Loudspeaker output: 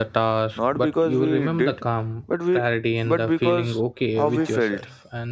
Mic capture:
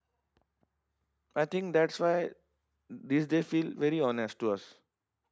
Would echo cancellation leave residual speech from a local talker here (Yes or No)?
Yes